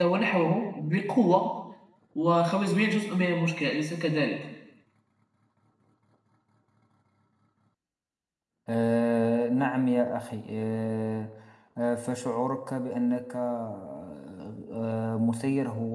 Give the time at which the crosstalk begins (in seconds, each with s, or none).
none